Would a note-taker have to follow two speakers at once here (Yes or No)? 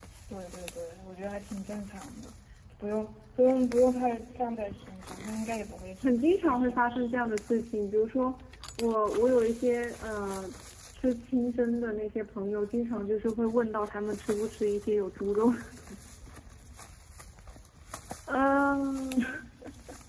Yes